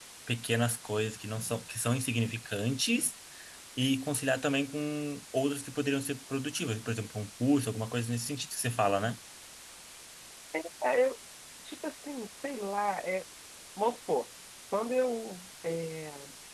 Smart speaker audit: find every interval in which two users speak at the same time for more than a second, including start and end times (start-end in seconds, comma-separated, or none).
none